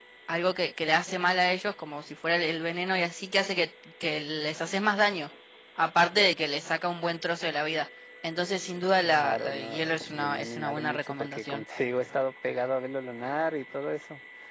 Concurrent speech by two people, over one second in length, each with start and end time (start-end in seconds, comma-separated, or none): 8.9-11.6